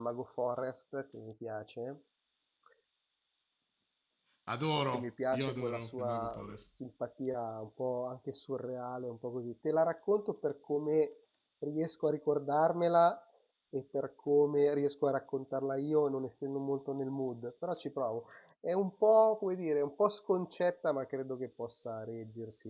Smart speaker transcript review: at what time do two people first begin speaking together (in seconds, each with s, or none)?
4.9 s